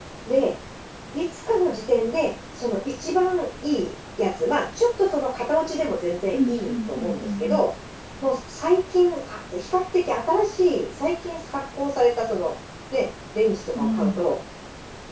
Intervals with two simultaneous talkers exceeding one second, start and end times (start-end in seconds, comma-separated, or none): 6.3-7.6